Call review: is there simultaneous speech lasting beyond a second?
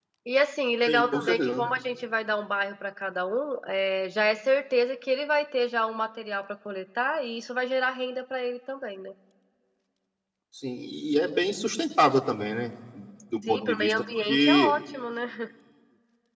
Yes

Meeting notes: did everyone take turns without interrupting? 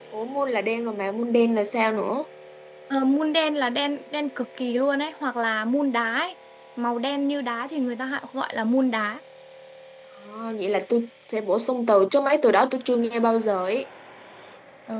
Yes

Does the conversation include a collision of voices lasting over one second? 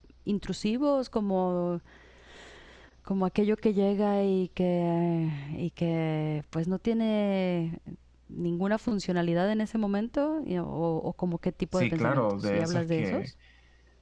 Yes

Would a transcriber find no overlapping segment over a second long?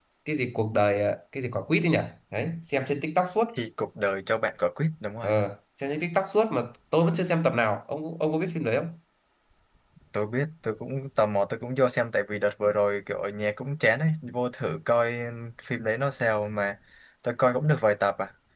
Yes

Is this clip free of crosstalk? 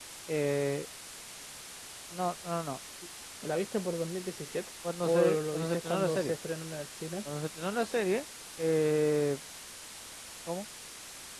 No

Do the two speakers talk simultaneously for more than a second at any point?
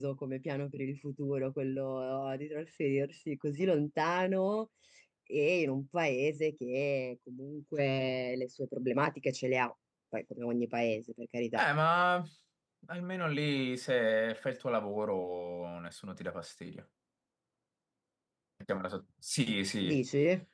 No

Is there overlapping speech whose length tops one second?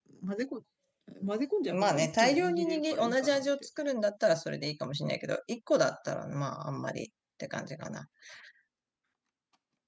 Yes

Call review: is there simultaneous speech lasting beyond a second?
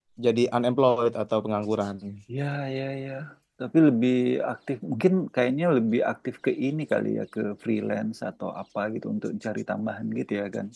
No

